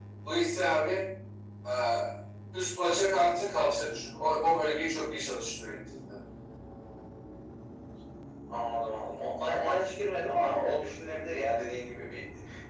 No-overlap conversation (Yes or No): Yes